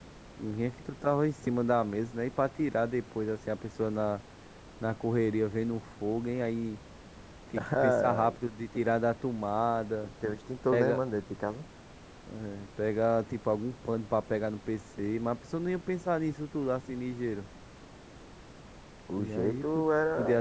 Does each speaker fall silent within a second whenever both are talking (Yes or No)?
No